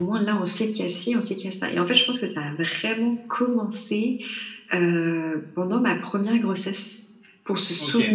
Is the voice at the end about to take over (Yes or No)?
No